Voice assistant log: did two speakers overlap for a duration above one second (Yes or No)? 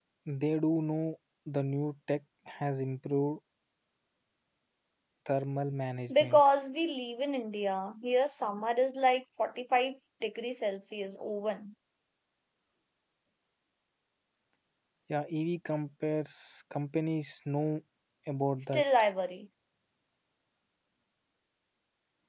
No